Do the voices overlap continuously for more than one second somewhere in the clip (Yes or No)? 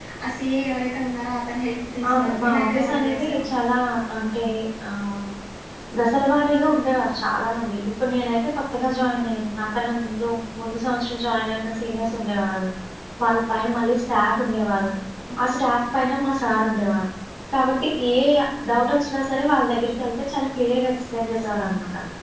Yes